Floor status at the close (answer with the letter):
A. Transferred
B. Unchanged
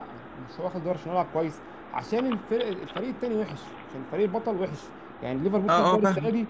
A